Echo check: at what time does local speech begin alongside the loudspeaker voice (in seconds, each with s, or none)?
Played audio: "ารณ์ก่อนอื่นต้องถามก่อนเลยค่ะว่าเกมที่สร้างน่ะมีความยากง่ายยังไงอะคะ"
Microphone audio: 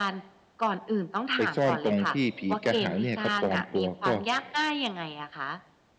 1.4 s